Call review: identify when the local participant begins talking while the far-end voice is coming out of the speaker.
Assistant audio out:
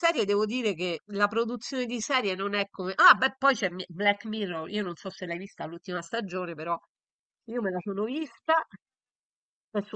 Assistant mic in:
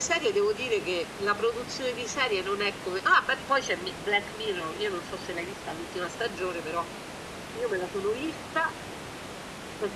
none

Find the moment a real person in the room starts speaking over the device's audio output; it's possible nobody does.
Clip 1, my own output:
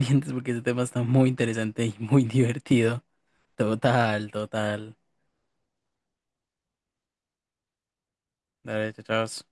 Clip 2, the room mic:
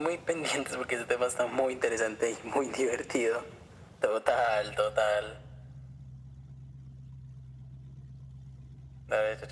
none

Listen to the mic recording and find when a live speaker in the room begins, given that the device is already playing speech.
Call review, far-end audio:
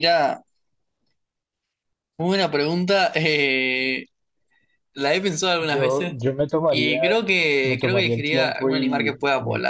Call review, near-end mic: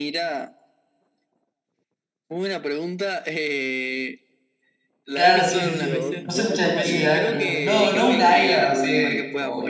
5.1 s

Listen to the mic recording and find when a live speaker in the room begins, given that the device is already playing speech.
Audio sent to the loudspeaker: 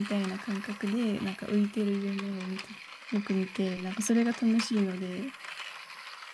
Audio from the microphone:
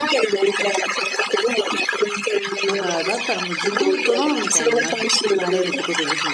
2.6 s

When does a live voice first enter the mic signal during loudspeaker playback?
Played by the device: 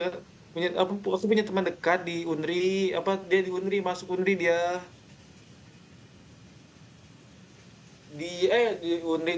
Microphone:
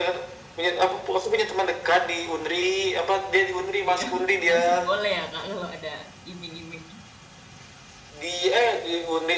3.9 s

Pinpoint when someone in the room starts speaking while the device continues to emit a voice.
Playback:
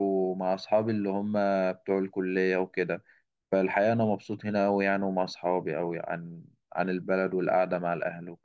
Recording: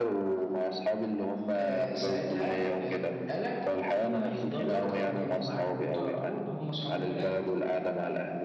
1.5 s

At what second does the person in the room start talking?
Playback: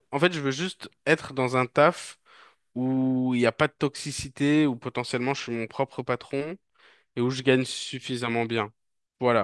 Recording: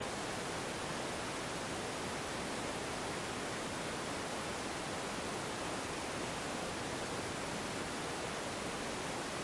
none

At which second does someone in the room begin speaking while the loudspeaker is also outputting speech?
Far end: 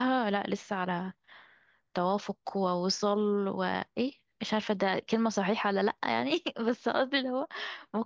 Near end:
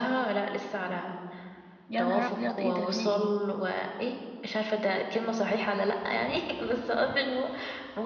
1.9 s

